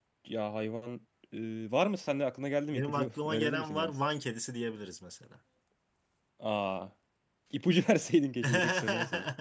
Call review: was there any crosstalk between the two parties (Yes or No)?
Yes